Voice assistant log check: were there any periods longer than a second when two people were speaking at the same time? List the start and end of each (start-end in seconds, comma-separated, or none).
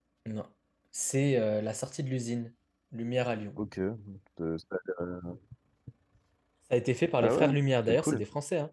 none